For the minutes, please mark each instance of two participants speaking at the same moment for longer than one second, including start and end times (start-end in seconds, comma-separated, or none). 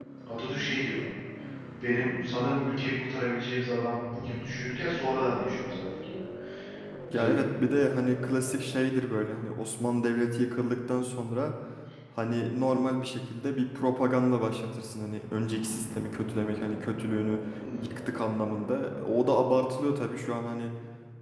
none